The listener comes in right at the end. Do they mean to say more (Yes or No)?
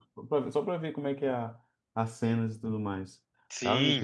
Yes